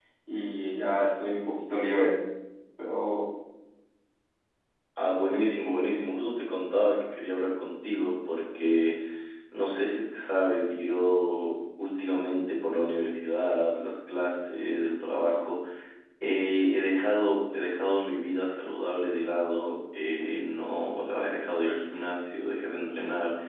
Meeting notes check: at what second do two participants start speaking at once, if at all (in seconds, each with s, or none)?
none